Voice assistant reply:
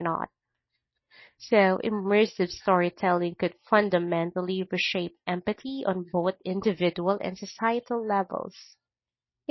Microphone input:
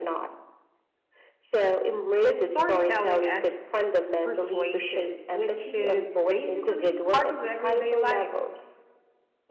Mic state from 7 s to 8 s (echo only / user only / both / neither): both